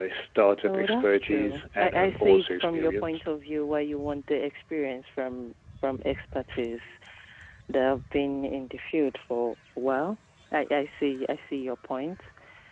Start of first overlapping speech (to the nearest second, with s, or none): 1 s